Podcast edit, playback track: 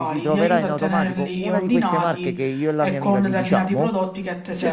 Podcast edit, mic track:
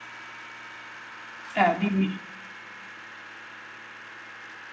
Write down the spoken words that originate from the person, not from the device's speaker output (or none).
Eh, dimmi.